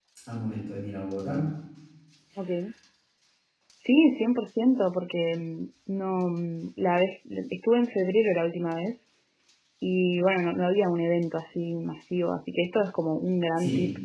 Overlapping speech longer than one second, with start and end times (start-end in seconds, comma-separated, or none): none